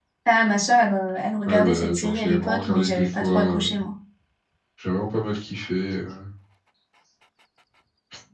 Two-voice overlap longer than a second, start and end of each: 1.5-3.8

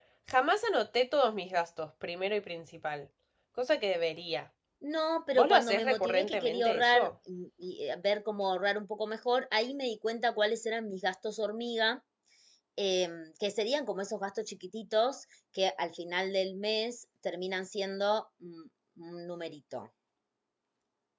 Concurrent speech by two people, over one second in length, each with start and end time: 5.4-7.1

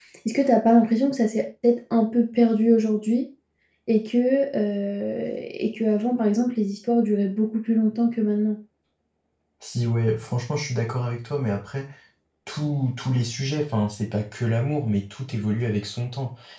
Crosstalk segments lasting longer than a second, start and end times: none

